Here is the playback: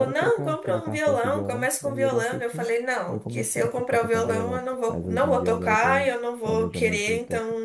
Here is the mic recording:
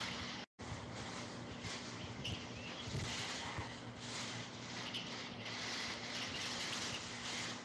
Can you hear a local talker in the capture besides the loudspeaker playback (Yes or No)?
No